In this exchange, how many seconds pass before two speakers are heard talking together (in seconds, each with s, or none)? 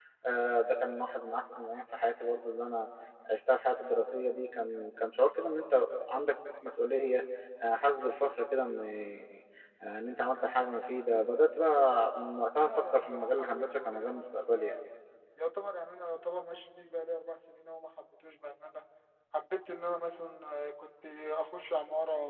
12.7 s